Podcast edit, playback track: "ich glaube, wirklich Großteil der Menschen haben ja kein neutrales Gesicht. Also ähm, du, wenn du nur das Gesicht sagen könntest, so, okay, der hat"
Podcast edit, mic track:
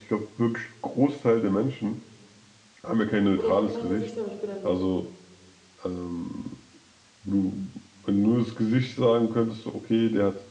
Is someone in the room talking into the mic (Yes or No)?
Yes